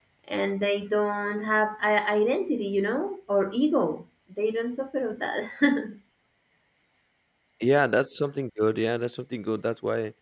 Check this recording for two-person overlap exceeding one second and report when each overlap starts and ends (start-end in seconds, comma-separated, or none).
none